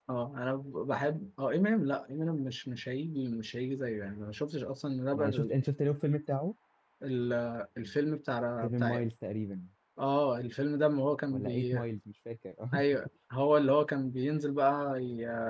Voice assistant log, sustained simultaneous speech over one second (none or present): none